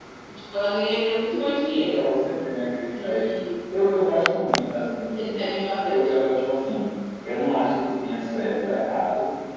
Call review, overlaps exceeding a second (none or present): none